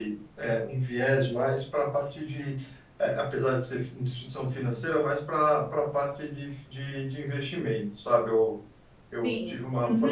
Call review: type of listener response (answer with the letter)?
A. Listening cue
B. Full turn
A